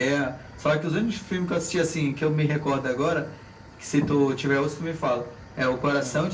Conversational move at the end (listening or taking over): listening